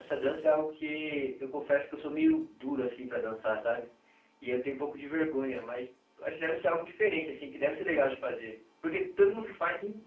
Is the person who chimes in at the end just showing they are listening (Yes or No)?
Yes